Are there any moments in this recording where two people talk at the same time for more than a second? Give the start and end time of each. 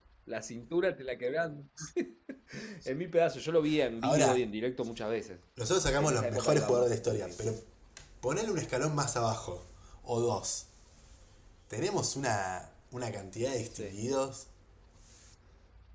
6.0-7.4

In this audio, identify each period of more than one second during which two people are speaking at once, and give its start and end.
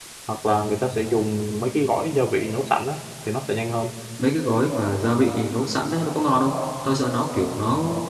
none

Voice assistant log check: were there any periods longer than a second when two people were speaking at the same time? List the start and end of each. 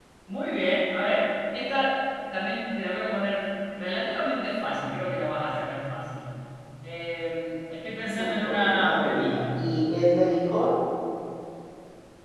8.2-9.4

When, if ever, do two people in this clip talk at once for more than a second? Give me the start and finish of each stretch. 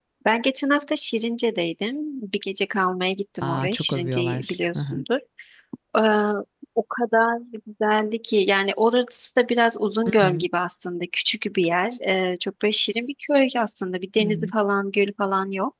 3.4-5.0

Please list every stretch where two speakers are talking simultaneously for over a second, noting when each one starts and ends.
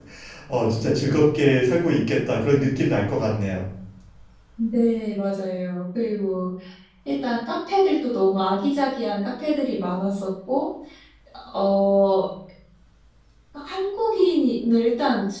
none

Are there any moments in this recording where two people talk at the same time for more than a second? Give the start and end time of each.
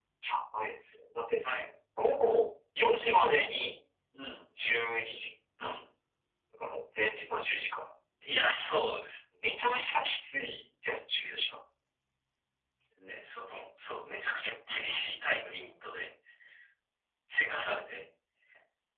none

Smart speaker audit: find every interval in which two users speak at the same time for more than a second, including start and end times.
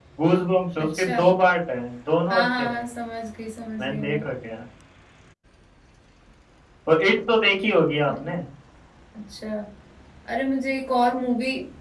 none

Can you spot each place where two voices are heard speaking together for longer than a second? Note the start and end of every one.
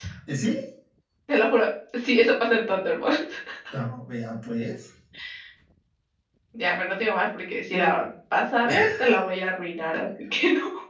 none

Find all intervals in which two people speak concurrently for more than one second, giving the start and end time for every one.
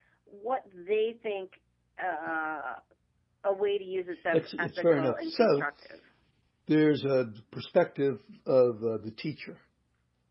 4.3-5.6

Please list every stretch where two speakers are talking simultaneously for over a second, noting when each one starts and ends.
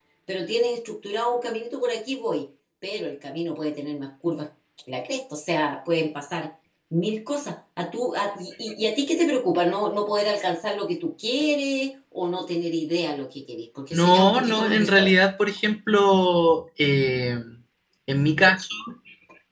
13.9-15.1

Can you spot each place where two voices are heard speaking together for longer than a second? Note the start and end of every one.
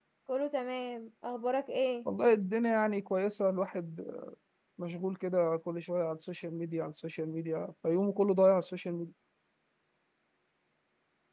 none

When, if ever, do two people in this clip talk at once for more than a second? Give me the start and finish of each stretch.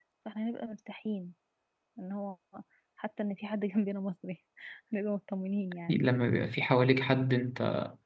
none

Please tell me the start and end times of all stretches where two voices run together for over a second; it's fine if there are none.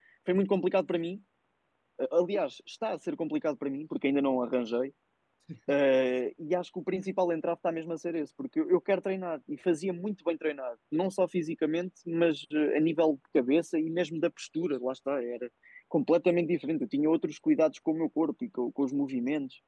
none

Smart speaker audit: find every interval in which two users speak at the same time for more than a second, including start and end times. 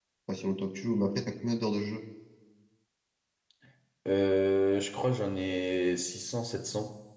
none

